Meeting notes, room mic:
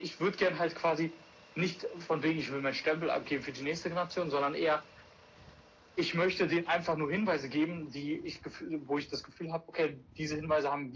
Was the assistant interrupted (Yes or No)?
No